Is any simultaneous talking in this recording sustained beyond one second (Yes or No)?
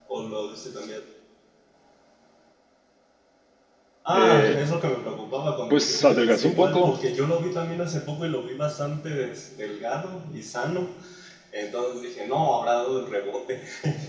Yes